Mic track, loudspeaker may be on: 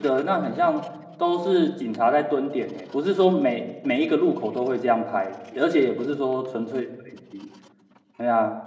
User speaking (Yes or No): Yes